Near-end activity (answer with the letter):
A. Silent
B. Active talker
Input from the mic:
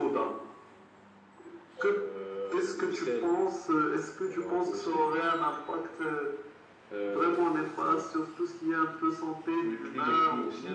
A